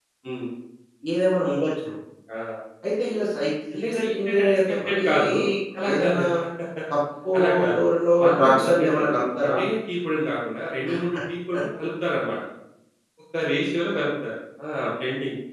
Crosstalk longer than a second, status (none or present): present